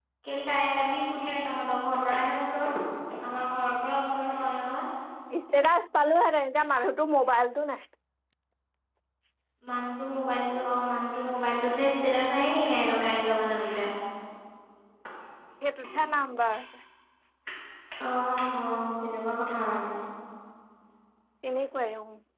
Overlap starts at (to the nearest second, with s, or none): none